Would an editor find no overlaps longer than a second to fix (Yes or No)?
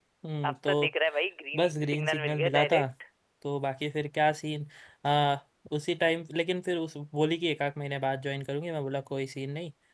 No